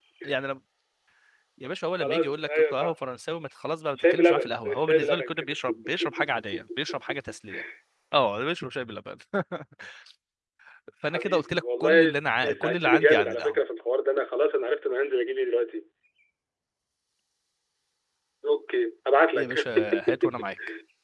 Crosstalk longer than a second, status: present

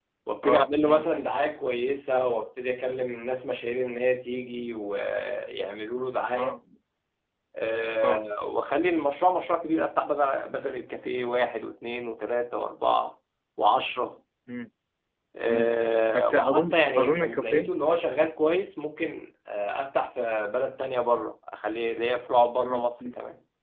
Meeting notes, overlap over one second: present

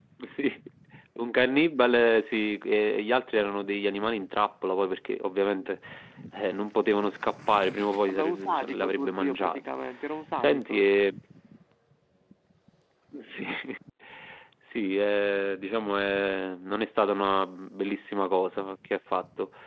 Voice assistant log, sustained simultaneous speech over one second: present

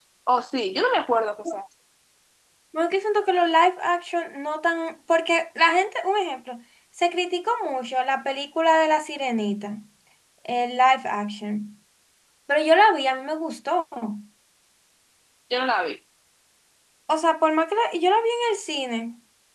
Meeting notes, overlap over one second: none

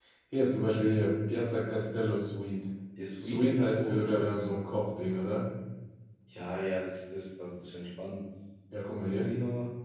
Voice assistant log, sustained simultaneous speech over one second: present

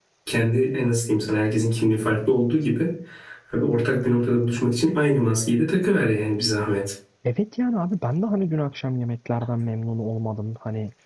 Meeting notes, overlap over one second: none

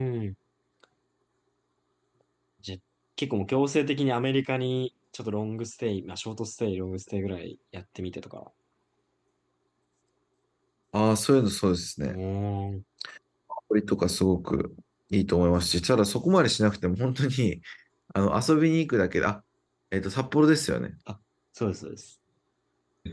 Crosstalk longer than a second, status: none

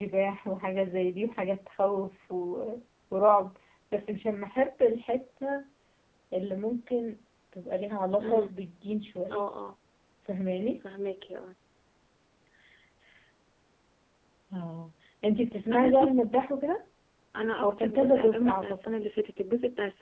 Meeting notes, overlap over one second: present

